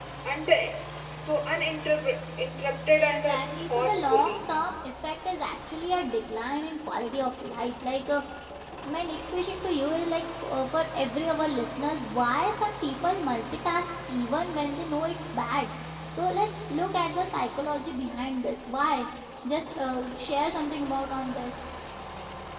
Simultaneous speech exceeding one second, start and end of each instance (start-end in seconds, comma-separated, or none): 3.0-4.5